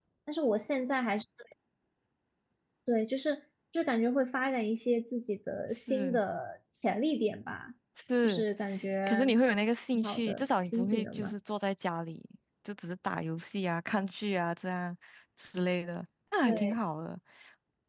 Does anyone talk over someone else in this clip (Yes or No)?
Yes